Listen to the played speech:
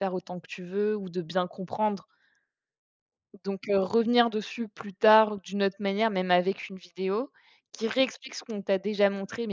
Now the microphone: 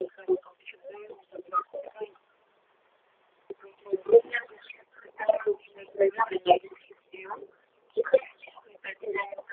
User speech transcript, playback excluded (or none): none